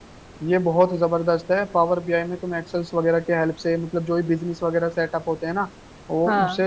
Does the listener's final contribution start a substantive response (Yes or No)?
No